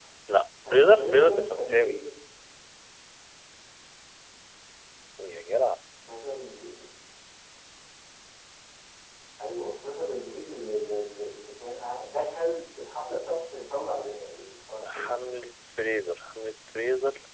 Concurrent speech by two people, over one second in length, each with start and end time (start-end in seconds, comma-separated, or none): 0.6-2.0